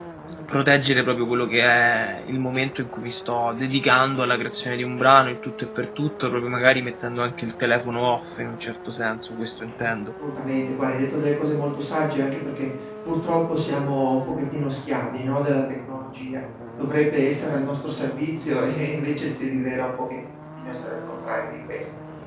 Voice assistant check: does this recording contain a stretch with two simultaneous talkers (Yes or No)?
No